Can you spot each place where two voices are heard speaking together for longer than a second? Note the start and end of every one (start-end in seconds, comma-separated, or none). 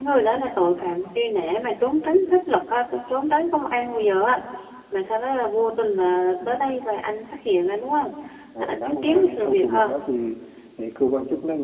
8.6-9.9